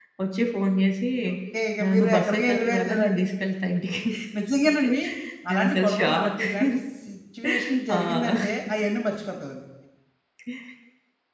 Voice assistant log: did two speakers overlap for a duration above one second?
Yes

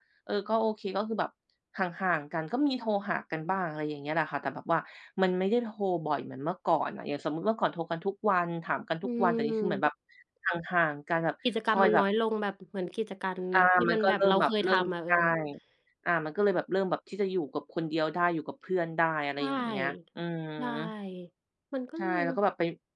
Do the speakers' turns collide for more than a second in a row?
Yes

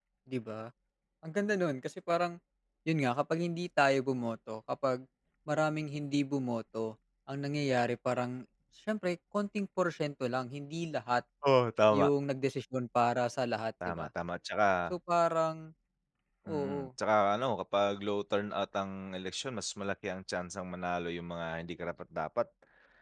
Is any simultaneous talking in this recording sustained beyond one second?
No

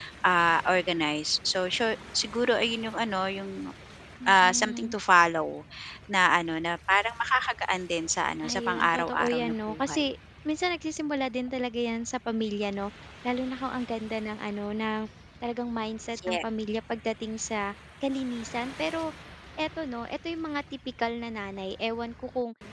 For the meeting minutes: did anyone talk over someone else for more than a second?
Yes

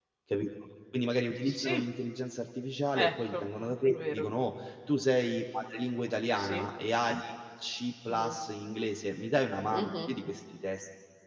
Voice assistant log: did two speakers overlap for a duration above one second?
No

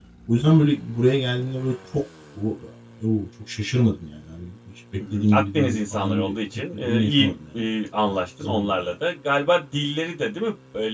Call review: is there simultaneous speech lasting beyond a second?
Yes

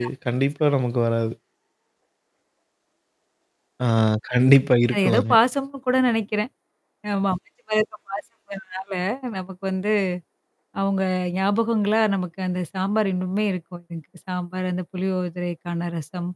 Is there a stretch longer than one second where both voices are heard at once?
No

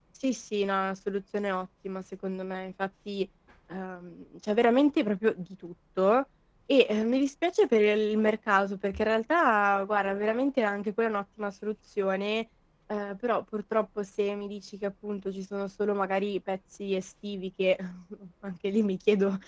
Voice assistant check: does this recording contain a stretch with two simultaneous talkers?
No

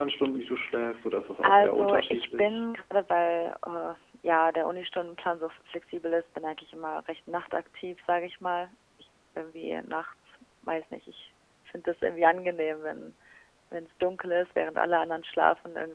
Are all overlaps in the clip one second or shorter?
No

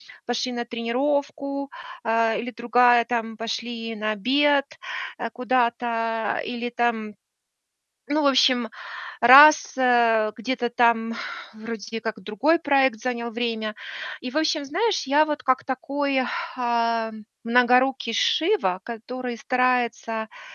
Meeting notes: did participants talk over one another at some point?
No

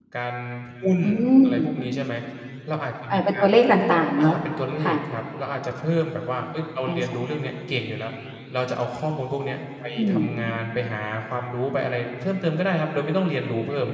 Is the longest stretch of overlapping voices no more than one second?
Yes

